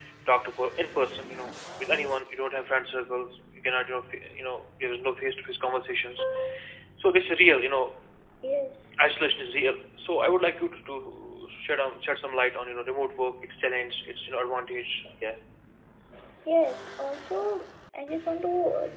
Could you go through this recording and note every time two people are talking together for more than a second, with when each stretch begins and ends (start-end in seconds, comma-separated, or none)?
none